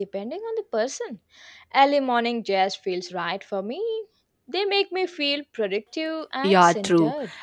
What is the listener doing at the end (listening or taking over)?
taking over